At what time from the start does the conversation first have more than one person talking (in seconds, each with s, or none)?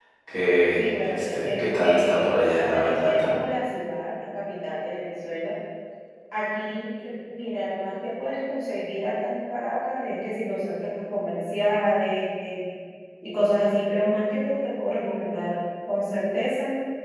0.8 s